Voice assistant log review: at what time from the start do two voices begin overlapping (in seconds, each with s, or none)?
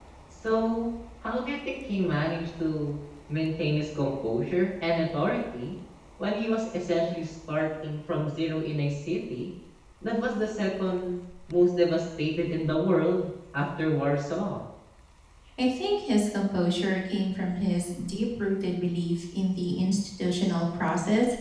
none